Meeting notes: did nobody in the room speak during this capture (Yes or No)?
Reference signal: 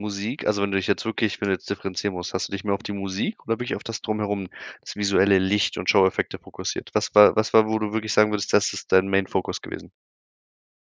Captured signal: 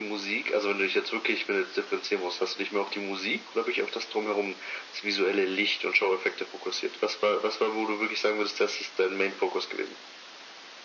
Yes